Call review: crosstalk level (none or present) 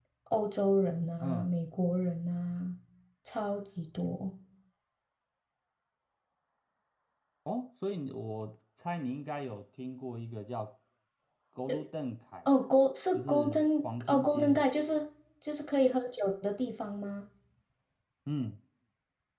present